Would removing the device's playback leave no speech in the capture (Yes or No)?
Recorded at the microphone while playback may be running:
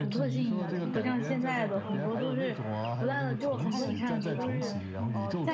No